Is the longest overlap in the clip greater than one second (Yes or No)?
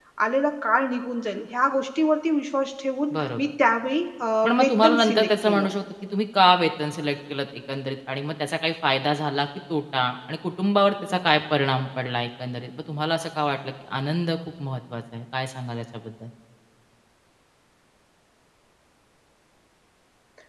Yes